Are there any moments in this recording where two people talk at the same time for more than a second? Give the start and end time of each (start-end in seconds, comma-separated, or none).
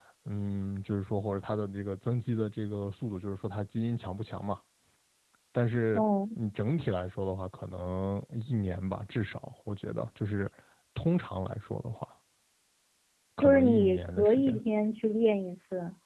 13.4-14.6